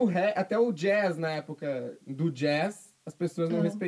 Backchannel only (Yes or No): Yes